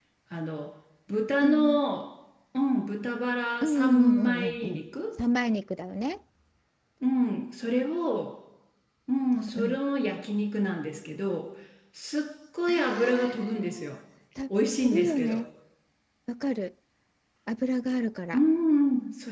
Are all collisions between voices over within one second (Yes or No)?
No